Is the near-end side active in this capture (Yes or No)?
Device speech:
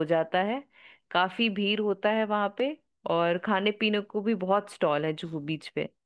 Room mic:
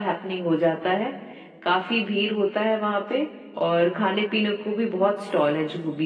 No